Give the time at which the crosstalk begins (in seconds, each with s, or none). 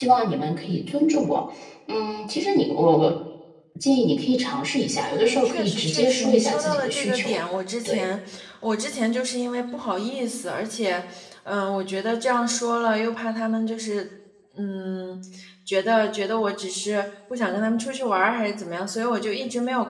5.0 s